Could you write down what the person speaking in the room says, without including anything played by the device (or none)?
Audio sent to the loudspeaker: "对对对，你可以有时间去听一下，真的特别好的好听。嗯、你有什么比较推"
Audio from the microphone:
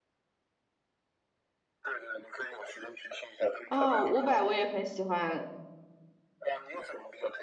啊，伍佰我也很喜欢，